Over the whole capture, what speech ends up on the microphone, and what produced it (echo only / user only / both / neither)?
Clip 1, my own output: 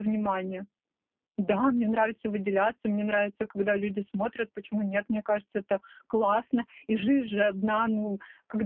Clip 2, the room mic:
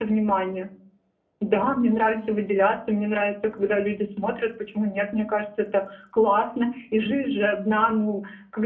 both